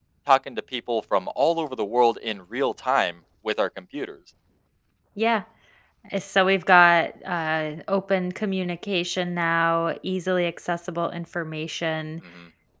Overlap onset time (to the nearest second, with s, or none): none